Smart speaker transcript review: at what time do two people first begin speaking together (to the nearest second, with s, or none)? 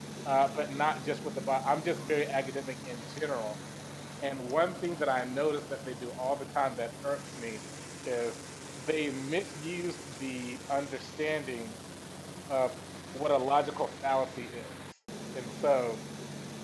none